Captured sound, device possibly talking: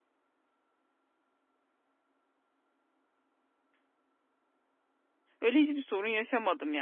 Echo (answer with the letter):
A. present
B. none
B